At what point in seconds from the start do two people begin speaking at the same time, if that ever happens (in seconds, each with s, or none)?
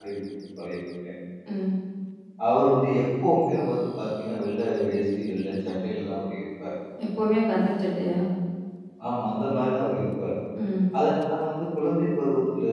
none